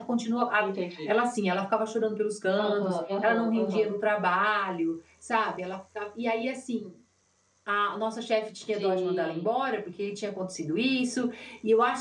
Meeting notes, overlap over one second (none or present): present